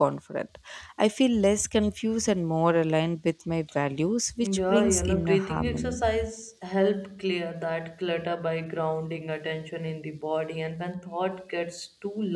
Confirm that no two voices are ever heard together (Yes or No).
No